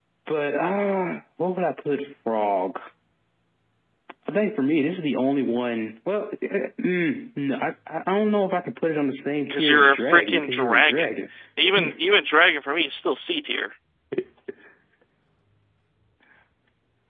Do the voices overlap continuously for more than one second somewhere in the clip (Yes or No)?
Yes